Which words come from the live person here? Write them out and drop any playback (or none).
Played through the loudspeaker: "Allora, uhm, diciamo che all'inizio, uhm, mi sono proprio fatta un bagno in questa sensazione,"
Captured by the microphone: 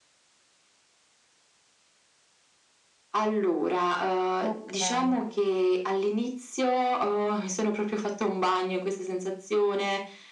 Okay.